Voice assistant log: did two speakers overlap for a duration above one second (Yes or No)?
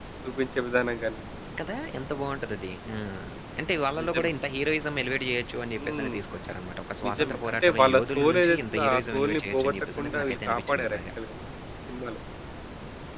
Yes